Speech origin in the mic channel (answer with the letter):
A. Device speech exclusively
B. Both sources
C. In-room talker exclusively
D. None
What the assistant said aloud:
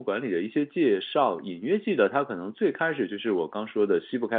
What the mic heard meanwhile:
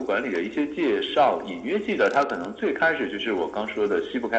A